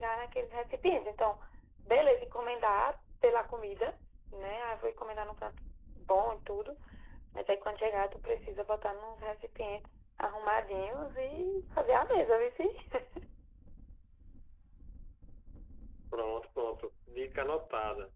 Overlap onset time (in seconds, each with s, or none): none